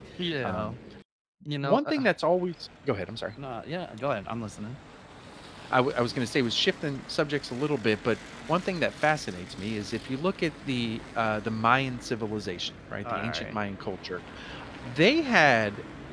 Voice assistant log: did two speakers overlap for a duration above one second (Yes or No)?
No